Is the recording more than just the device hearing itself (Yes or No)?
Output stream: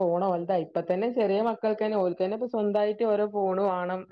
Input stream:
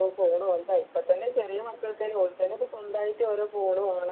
No